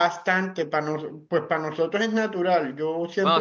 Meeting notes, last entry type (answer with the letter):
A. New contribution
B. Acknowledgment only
A